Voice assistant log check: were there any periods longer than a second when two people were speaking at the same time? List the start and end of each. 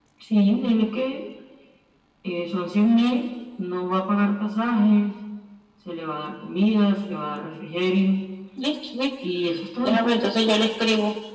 none

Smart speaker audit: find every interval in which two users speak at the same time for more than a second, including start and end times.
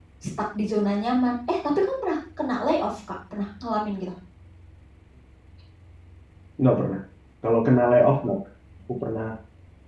none

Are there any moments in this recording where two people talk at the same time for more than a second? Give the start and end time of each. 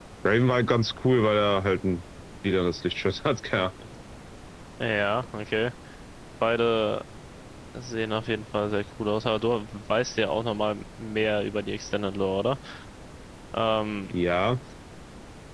none

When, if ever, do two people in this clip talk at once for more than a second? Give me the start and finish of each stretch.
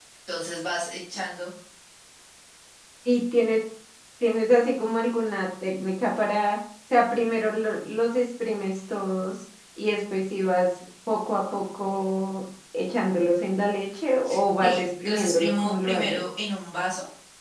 14.6-16.2

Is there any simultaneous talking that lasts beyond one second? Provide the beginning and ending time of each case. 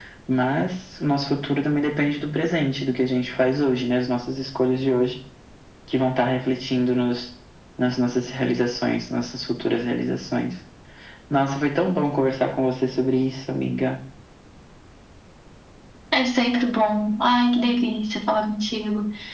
none

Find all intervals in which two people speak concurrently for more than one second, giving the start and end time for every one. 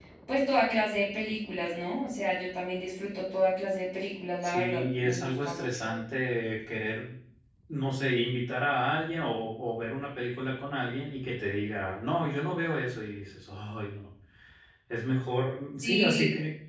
4.4-5.9

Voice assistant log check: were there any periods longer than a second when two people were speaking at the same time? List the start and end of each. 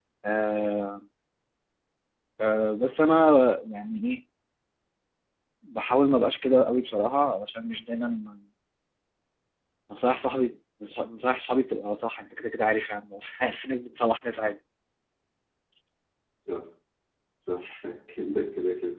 none

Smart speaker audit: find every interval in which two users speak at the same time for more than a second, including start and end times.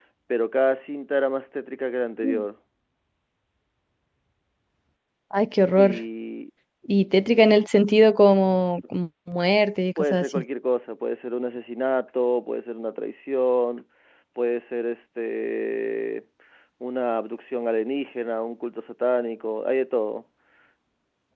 none

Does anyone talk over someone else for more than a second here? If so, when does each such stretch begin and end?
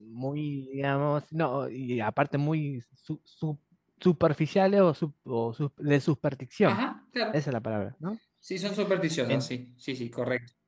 none

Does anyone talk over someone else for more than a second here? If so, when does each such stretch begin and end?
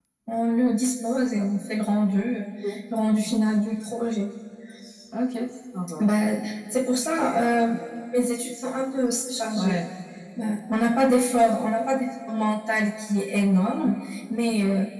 none

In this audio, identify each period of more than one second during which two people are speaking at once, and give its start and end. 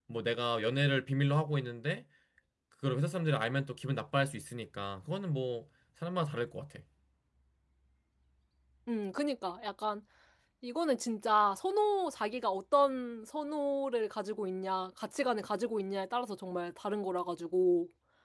none

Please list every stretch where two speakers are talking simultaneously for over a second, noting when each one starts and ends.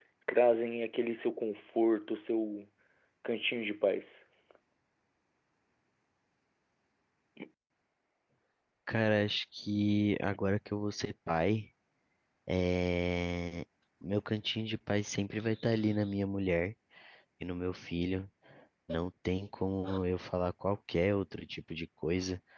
none

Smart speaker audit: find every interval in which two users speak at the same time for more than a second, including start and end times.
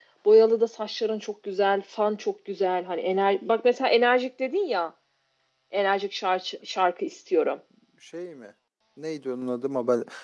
none

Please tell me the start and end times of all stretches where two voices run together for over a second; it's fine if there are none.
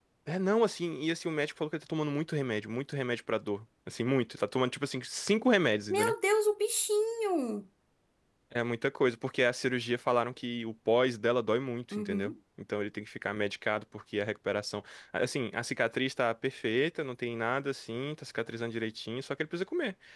none

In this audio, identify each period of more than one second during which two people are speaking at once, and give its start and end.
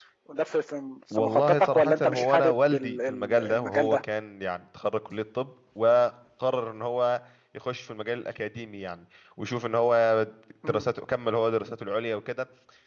1.2-4.0

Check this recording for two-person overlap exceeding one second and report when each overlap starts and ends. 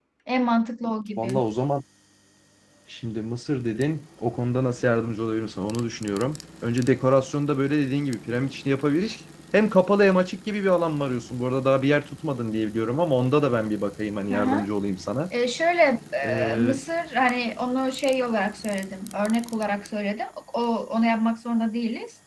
none

